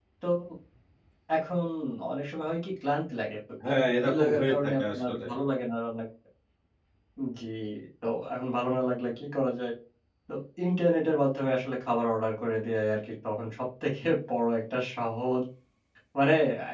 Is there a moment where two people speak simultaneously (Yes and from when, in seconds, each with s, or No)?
Yes, from 3.6 s